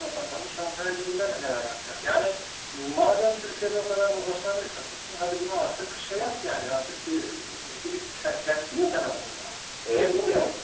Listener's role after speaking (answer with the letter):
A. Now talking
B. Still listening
A